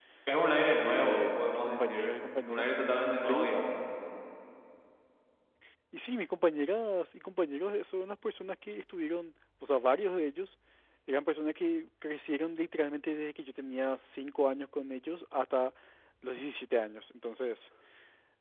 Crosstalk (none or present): present